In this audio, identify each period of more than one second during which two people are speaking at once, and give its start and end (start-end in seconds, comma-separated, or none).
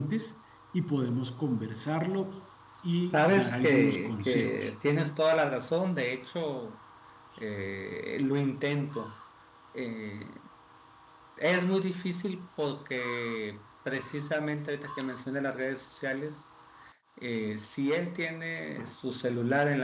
3.1-4.7